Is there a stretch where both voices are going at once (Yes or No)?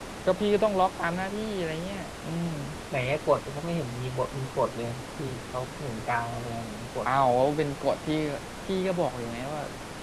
No